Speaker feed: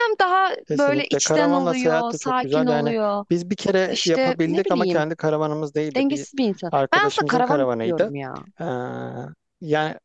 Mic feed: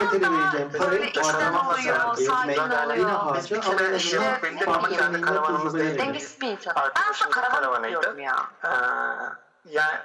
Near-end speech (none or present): present